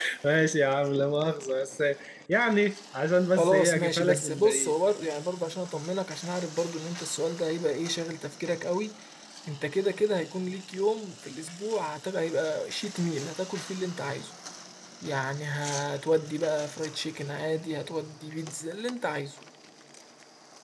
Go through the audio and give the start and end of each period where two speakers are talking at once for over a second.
3.4-4.7

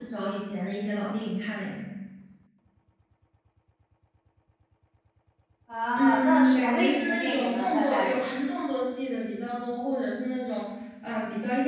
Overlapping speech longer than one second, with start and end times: 5.9-8.1

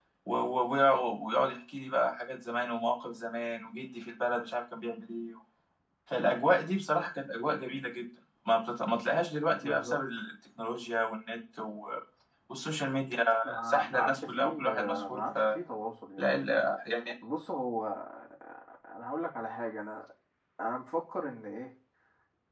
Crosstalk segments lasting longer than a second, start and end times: 13.7-15.6

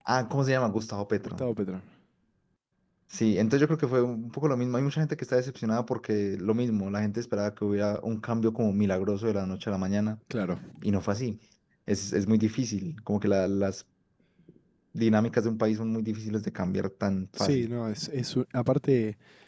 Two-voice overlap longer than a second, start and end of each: none

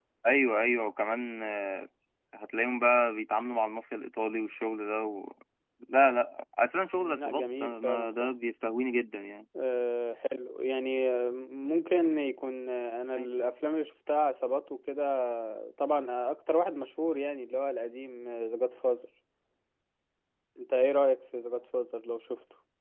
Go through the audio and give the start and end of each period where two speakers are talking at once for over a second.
7.0-8.3

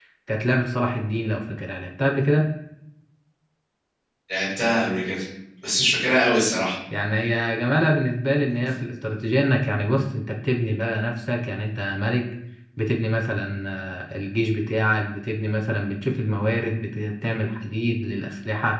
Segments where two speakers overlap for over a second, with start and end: none

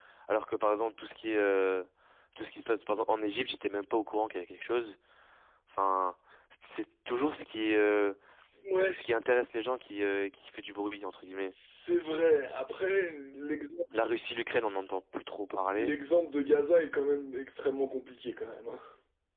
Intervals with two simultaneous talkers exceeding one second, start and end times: none

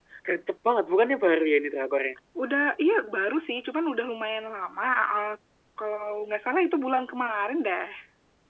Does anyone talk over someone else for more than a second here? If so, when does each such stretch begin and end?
none

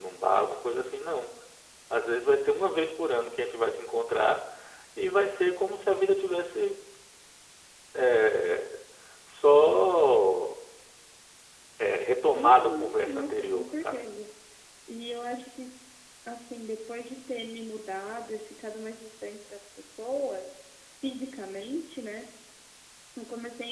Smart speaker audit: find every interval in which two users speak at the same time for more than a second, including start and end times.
12.3-14.1

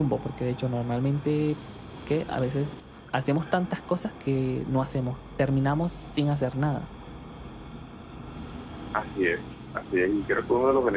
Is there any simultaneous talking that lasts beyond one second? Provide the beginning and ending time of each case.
none

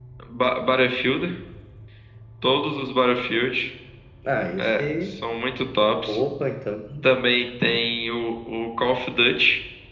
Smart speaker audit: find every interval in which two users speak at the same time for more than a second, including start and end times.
none

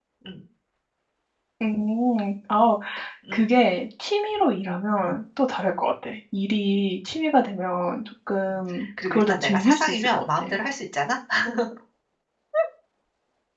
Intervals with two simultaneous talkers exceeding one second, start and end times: 9.0-10.5

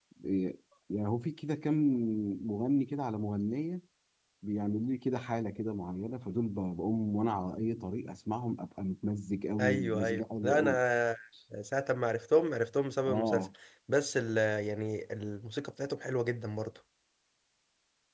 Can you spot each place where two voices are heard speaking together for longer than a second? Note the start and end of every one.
9.6-10.8

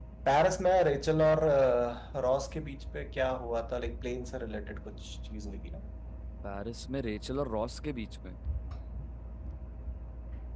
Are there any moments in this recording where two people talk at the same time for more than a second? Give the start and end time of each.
none

